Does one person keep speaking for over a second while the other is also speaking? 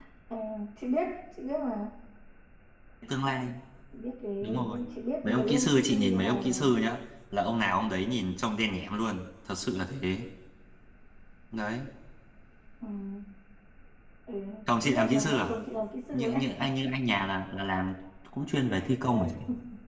Yes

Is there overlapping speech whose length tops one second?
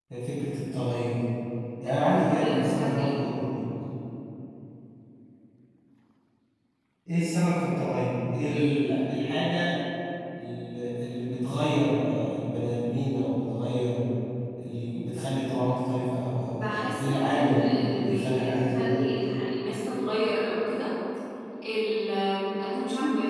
Yes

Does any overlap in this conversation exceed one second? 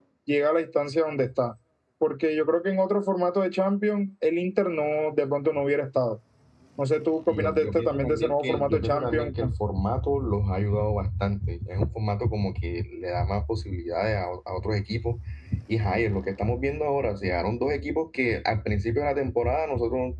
Yes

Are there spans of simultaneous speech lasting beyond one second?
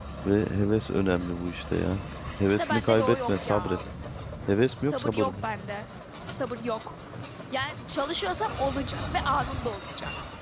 Yes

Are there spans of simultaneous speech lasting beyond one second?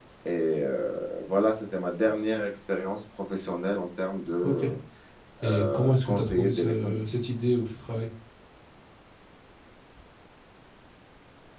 Yes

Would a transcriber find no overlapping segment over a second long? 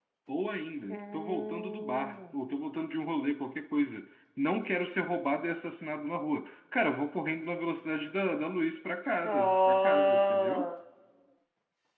No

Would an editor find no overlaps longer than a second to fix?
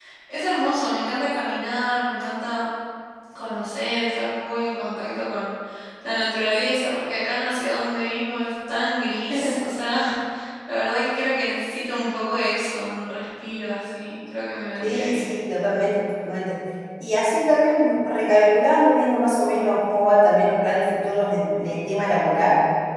Yes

